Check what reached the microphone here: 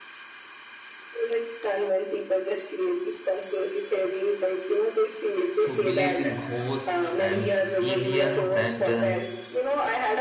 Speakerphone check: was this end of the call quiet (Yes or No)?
No